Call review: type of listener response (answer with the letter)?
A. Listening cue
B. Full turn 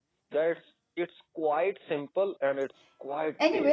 B